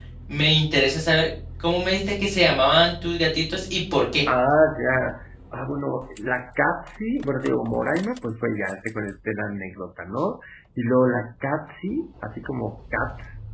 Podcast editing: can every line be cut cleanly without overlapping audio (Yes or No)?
Yes